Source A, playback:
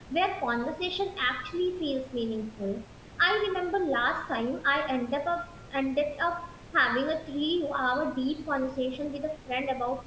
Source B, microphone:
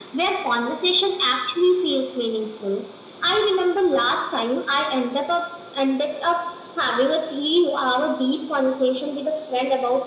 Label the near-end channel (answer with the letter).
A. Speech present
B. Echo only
B